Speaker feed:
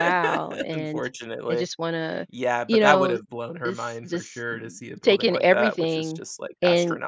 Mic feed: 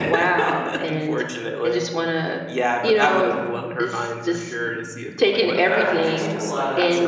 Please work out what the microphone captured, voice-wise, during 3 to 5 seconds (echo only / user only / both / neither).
echo only